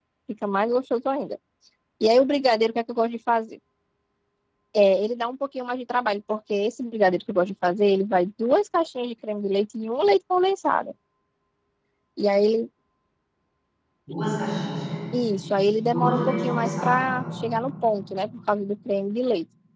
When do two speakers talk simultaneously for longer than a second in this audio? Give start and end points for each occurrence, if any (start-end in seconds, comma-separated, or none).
15.4-17.2